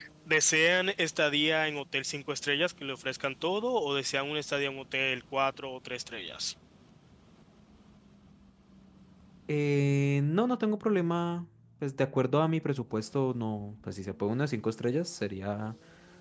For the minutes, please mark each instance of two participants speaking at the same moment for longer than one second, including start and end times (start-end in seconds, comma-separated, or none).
none